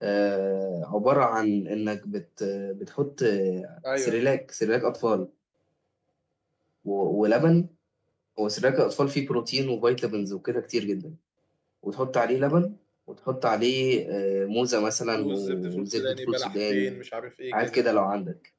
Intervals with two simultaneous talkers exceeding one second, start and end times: 15.2-17.0

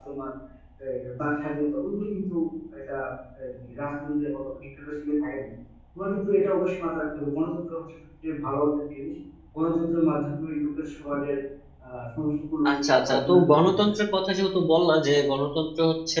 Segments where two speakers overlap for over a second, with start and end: 12.7-13.9

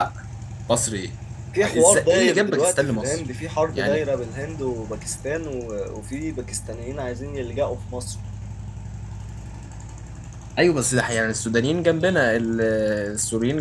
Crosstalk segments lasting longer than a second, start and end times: 1.8-3.2

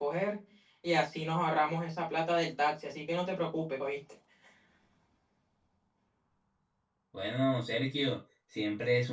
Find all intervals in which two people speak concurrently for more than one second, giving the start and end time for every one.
none

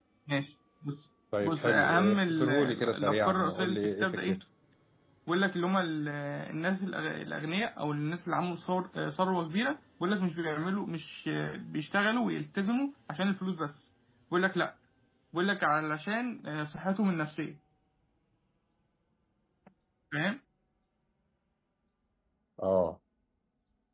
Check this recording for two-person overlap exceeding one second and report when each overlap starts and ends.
1.4-4.3

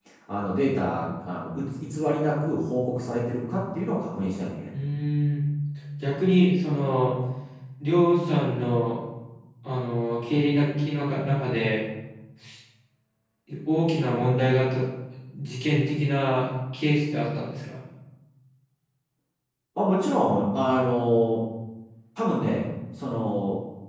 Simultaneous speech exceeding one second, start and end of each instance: none

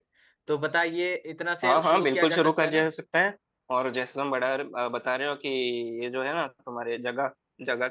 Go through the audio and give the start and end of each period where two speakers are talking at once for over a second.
1.6-2.9

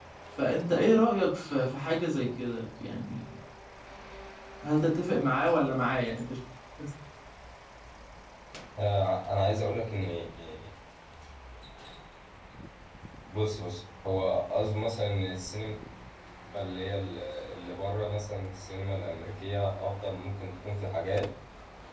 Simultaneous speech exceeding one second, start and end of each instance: none

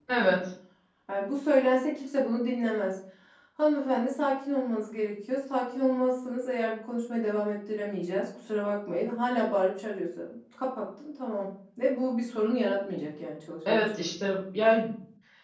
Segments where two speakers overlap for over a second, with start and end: none

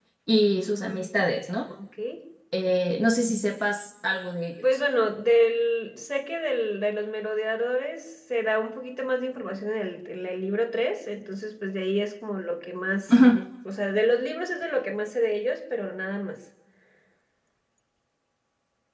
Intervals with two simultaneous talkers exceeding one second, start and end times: none

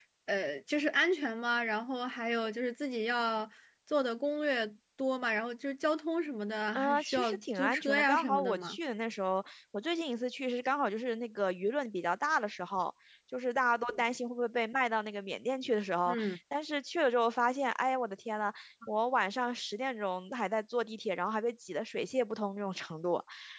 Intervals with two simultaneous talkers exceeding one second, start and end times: 6.7-8.8

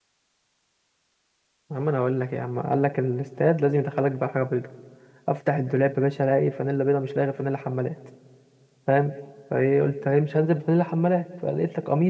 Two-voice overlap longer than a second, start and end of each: none

